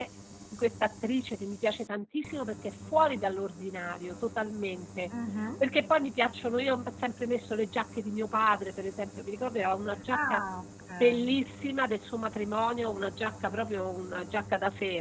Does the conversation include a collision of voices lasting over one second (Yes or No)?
No